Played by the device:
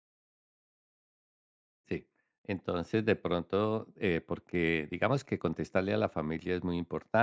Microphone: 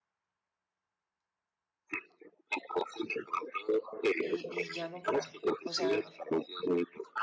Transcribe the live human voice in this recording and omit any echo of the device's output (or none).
y, y ya no paro. O sea,